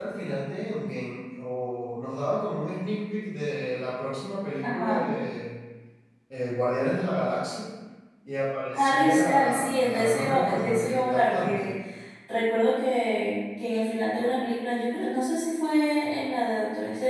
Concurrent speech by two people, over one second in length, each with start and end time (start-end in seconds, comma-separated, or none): 8.7-11.7